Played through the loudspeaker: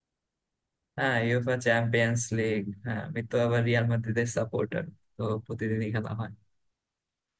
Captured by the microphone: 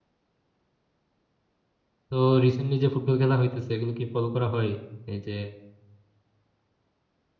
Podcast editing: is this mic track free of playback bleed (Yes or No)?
Yes